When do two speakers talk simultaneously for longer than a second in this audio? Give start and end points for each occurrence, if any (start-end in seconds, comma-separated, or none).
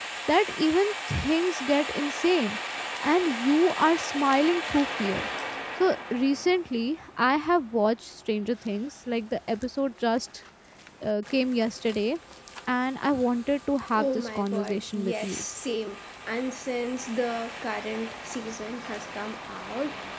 13.9-15.4